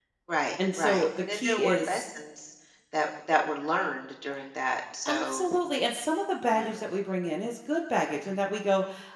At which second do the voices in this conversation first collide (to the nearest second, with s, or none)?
1 s